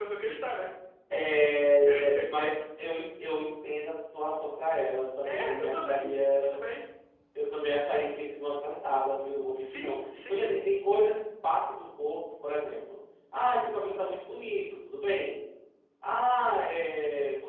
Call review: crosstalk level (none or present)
present